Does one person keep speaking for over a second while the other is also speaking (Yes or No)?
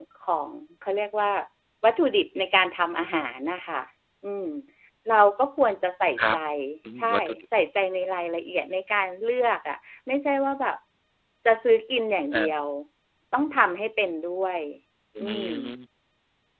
No